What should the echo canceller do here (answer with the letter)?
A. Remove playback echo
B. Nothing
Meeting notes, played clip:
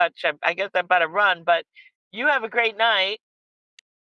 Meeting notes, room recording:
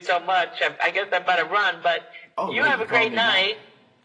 A